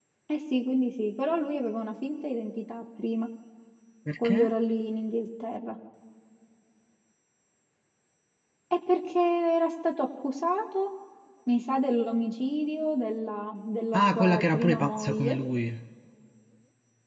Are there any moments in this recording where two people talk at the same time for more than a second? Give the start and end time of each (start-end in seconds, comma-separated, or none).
13.9-15.3